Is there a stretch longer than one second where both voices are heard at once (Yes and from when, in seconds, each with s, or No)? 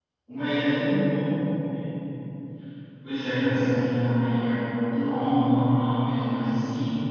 No